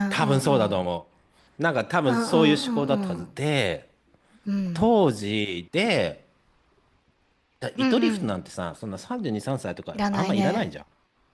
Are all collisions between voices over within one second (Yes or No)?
No